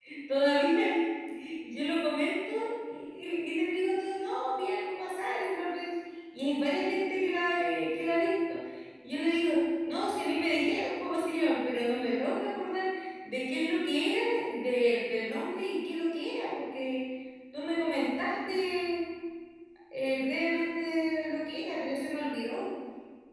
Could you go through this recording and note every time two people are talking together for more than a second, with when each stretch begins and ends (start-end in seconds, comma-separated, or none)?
none